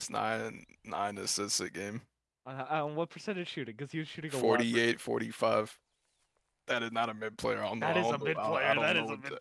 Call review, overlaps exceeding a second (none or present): present